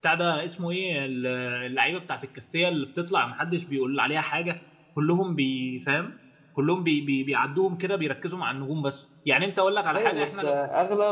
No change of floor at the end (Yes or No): No